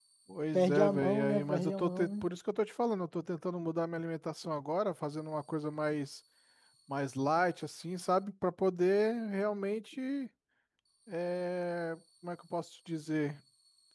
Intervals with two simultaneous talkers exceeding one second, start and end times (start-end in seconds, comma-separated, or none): 0.5-2.2